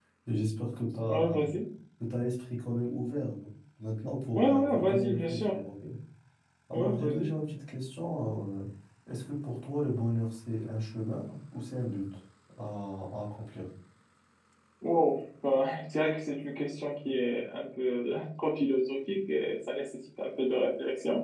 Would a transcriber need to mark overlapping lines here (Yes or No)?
Yes